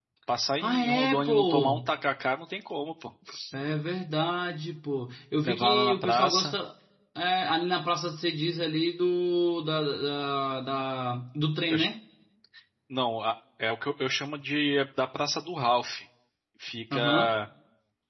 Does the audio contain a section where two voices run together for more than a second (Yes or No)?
Yes